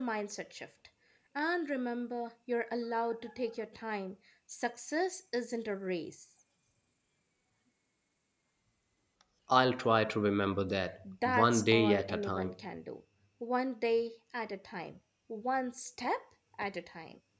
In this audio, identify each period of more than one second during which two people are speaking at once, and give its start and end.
11.2-12.5

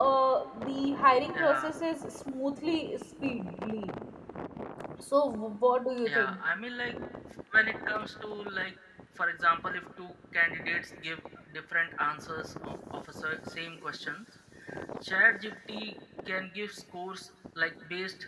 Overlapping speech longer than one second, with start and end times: none

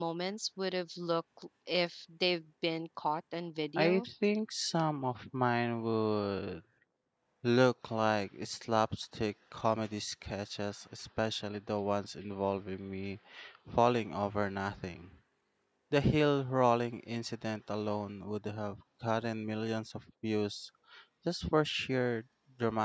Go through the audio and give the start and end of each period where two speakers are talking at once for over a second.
none

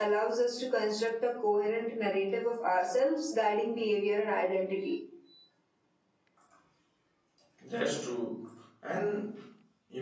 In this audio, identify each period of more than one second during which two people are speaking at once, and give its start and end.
none

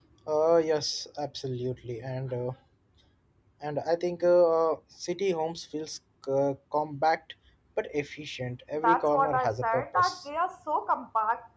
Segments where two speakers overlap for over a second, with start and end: 8.8-10.1

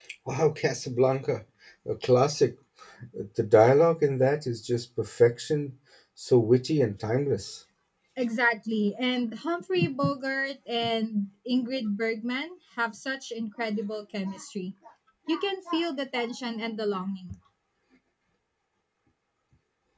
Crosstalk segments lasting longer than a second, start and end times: none

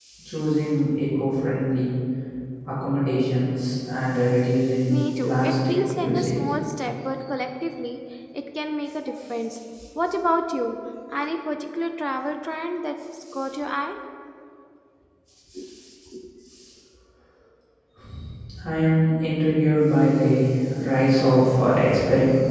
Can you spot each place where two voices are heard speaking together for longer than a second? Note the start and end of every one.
4.9-6.4

